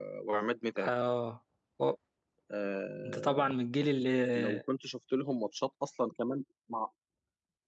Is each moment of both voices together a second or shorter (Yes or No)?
Yes